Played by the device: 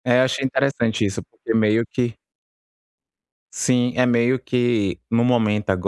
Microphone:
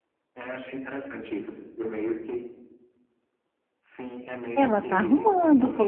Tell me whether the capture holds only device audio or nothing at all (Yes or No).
No